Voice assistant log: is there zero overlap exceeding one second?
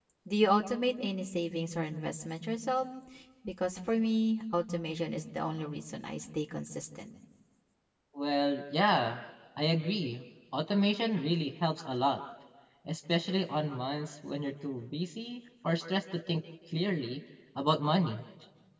Yes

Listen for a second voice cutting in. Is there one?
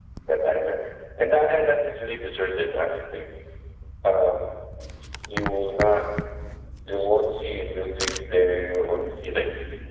No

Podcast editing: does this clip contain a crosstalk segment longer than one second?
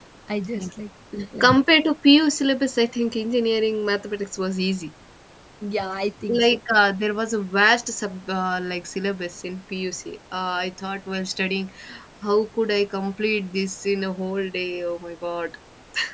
No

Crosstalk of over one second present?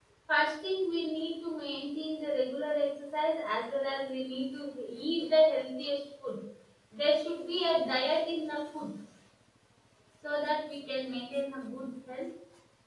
No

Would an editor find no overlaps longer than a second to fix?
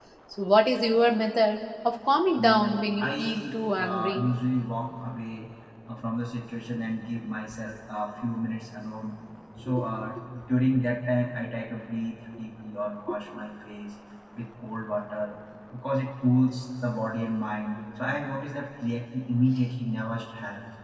No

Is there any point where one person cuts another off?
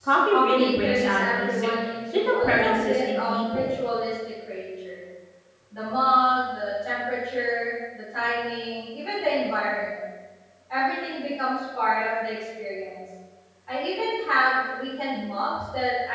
Yes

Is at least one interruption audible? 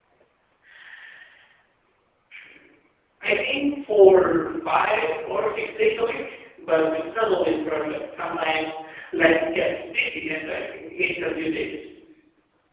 No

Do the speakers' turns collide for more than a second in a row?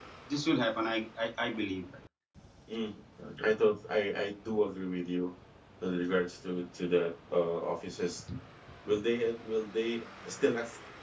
No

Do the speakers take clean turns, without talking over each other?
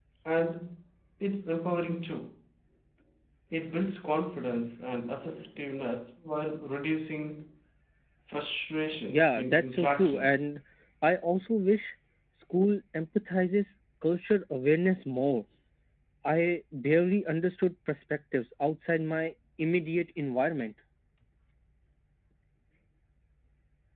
No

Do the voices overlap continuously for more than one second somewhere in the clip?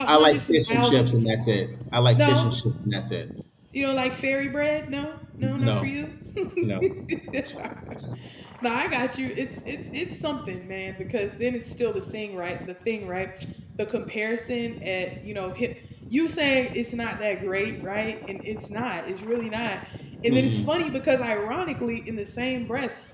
Yes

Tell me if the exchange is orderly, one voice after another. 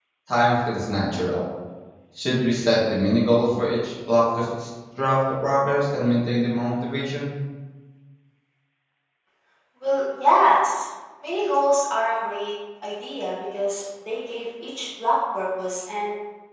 Yes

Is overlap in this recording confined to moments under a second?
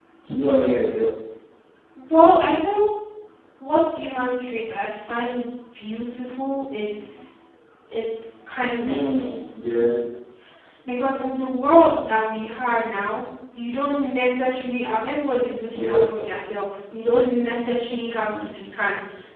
Yes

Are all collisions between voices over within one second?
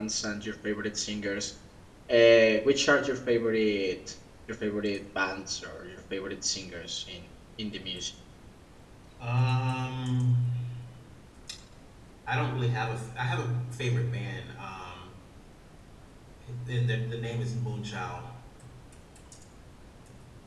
Yes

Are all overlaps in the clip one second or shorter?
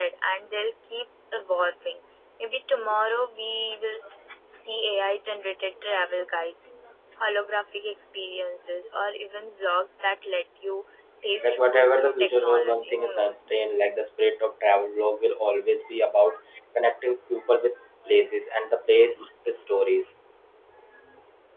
No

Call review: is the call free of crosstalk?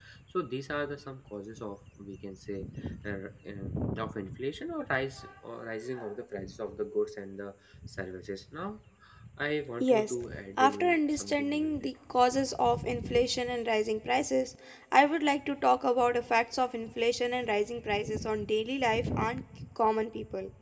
No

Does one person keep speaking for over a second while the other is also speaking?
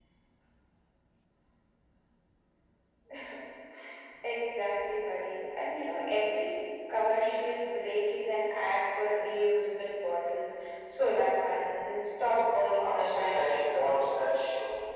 Yes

